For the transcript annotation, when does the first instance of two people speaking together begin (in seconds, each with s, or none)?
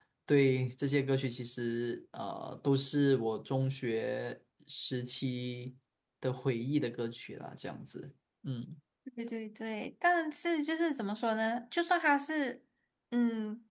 none